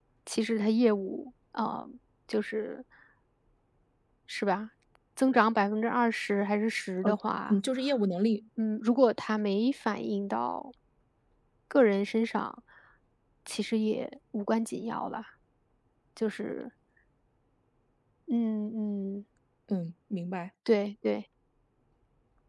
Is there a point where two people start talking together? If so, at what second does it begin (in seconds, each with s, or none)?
none